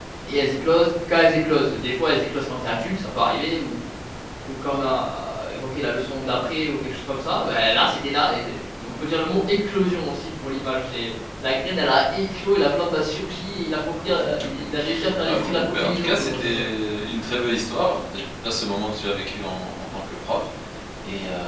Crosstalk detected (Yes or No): Yes